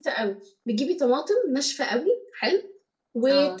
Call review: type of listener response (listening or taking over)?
listening